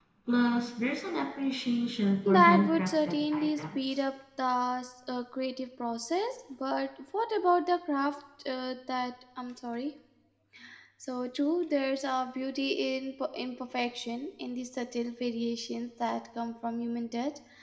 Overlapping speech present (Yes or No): Yes